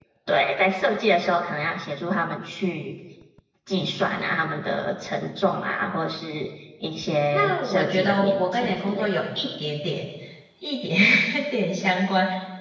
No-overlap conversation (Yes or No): No